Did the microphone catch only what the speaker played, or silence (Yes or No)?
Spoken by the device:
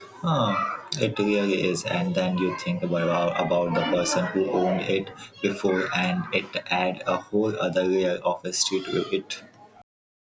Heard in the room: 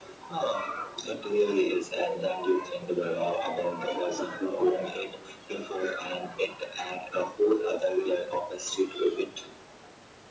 Yes